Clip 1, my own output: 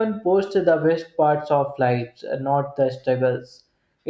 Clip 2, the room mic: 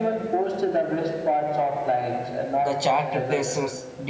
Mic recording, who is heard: both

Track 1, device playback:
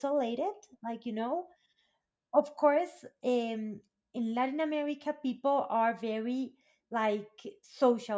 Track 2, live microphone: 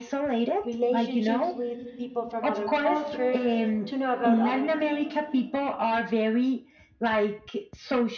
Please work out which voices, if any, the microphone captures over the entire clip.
both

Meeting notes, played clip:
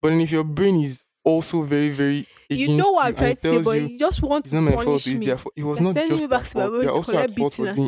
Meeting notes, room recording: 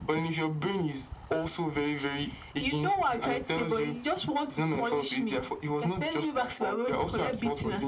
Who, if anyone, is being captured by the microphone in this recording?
echo only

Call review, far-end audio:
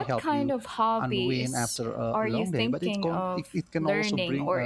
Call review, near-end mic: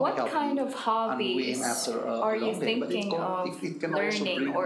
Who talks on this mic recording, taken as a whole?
echo only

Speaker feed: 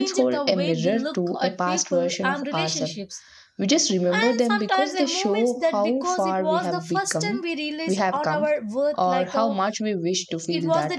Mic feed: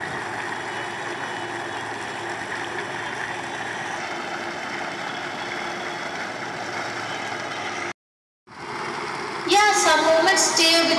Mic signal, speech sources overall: user only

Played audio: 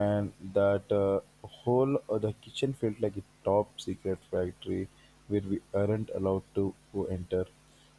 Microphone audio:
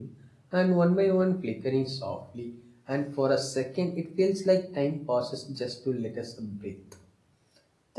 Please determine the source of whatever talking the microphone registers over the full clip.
user only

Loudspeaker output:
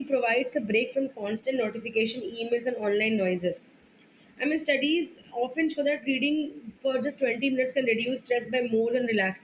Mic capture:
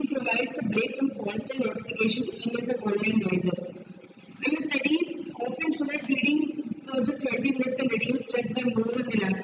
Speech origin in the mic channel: echo only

